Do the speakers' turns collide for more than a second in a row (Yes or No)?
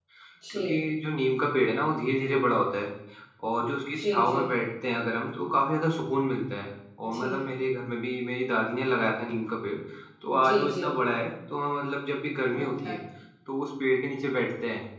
No